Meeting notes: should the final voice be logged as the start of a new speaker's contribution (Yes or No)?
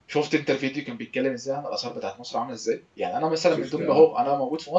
No